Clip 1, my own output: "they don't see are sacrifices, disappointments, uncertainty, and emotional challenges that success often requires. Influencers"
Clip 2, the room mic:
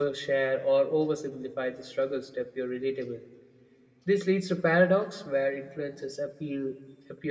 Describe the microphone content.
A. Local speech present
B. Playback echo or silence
A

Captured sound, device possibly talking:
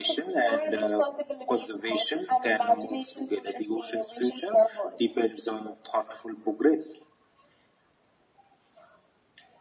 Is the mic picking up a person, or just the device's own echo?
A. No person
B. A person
A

